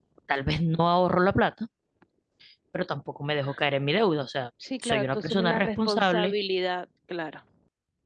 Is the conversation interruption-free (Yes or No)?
No